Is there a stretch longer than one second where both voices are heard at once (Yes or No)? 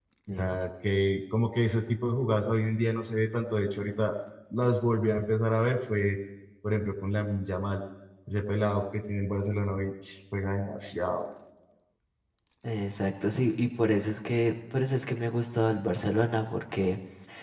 No